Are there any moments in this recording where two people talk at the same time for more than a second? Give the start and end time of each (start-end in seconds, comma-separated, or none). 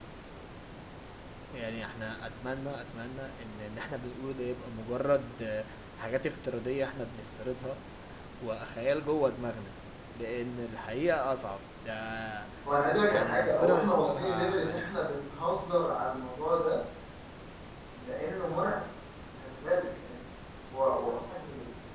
13.1-14.9